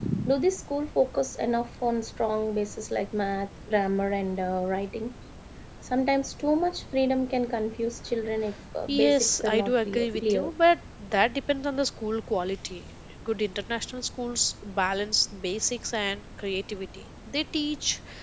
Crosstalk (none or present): present